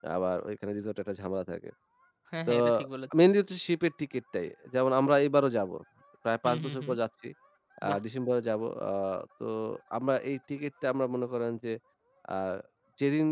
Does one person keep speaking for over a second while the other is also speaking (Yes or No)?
No